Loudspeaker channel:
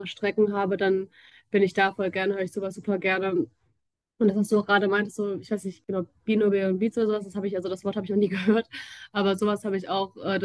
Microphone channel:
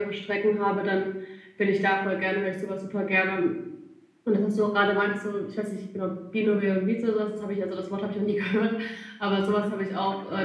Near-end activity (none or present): present